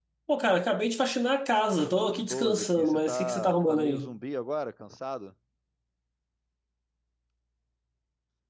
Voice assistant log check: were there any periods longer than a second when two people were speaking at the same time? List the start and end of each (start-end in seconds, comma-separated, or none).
2.0-4.1